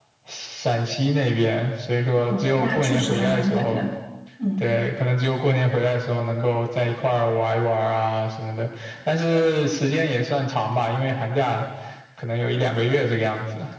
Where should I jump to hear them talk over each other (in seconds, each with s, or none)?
2.3 s